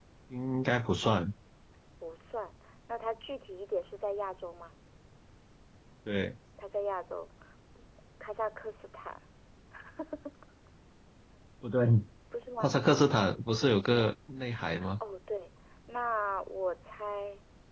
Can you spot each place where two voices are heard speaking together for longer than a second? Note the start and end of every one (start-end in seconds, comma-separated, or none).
none